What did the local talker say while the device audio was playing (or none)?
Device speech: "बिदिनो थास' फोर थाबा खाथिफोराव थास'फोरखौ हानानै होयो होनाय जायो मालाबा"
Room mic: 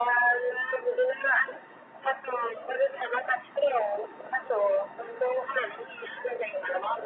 none